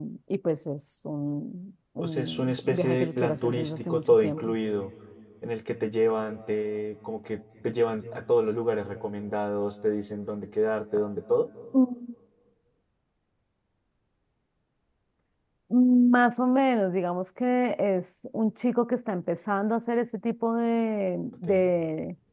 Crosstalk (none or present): present